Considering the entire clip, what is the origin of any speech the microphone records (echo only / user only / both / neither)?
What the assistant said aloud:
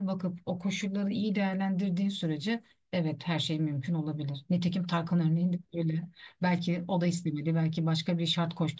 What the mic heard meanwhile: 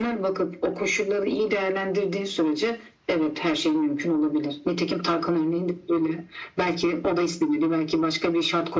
echo only